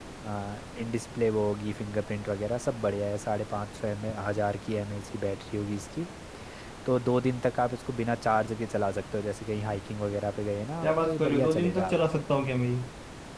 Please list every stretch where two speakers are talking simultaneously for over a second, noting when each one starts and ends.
10.8-12.2

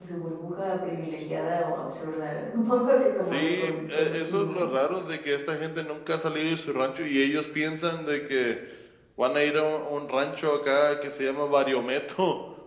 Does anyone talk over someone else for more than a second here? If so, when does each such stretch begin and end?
3.3-4.7

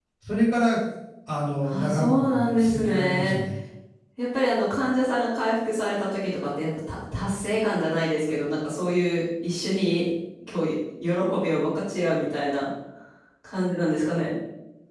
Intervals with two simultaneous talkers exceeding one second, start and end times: 1.6-3.4

